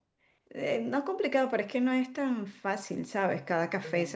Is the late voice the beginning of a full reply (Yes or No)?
No